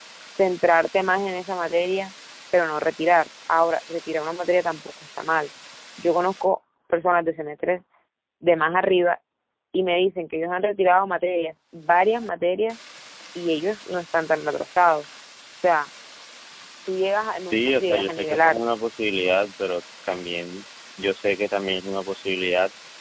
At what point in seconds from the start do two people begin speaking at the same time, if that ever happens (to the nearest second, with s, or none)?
17 s